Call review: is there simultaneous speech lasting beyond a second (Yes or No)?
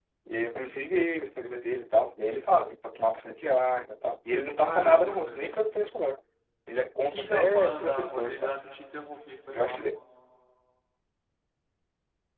Yes